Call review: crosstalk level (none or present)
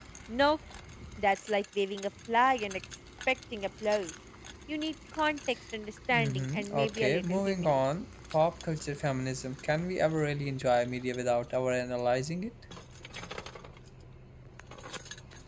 present